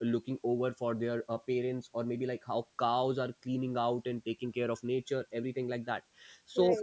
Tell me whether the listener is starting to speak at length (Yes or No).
No